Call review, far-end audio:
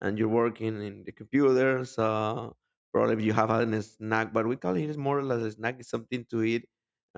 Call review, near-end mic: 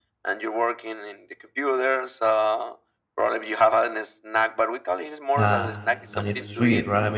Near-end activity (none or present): present